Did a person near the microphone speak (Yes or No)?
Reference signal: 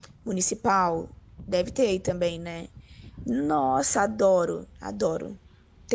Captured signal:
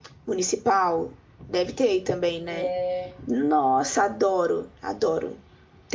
Yes